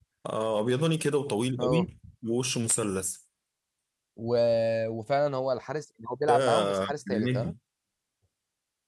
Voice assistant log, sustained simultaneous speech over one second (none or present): present